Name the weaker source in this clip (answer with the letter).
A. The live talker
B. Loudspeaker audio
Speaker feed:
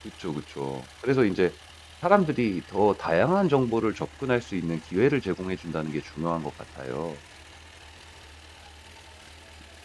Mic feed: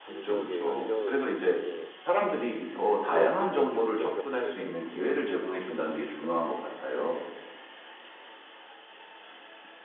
A